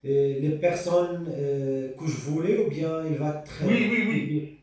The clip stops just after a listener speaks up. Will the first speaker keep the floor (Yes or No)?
No